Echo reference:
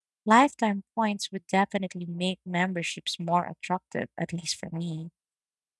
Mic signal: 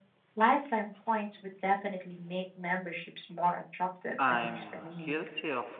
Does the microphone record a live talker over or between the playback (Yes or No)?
Yes